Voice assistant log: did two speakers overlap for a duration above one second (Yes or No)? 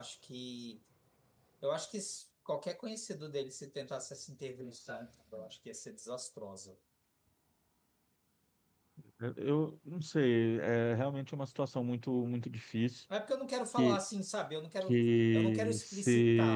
Yes